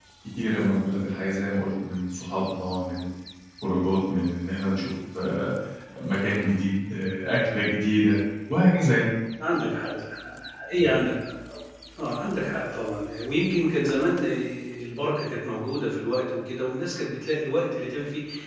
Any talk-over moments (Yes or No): No